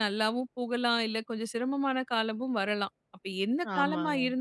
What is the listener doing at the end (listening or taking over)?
listening